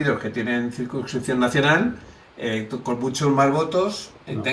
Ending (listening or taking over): listening